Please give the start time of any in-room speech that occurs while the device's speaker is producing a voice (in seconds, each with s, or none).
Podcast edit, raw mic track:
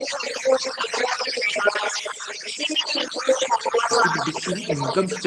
3.9 s